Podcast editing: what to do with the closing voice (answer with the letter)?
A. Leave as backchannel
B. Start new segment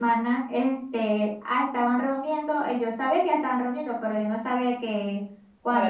A